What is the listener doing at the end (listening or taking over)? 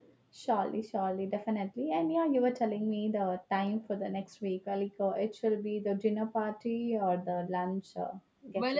taking over